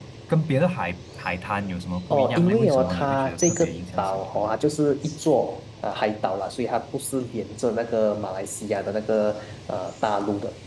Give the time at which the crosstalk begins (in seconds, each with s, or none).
2.1 s